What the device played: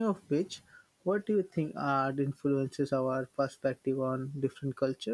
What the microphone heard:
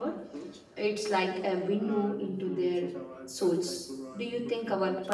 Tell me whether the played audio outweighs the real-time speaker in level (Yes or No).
No